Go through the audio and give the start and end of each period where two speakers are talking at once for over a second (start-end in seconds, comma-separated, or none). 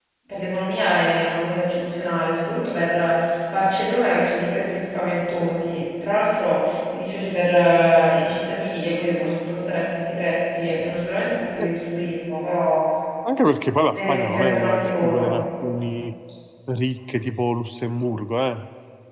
13.9-15.3